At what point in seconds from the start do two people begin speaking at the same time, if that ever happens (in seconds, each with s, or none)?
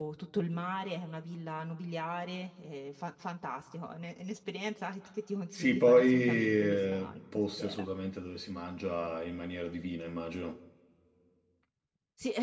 5.5 s